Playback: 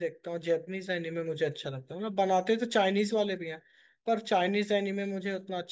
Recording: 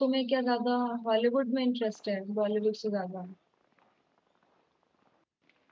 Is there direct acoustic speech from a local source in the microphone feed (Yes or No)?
Yes